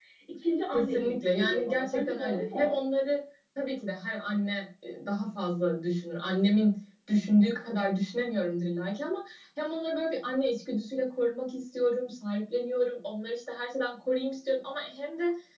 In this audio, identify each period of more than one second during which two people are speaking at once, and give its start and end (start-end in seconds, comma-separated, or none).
0.7-2.8